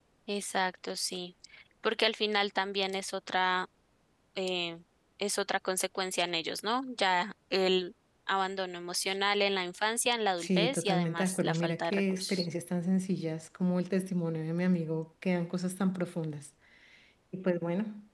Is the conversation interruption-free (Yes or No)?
No